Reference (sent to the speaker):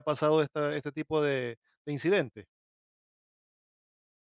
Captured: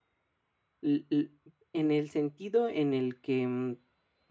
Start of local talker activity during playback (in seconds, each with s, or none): 0.8 s